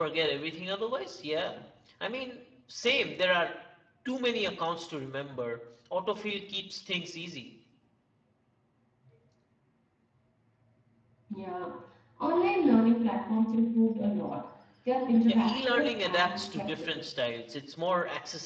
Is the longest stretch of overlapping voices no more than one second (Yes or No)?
No